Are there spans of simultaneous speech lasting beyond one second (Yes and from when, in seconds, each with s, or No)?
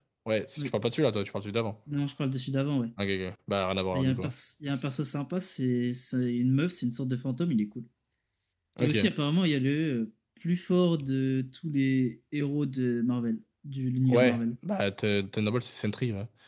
No